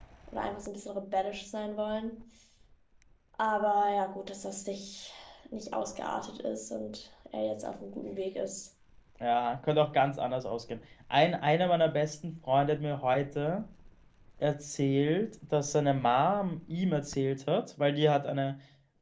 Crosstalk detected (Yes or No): No